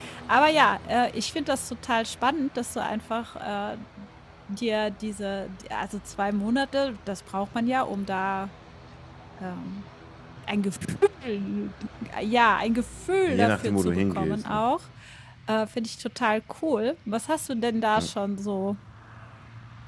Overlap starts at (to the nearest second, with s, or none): 13 s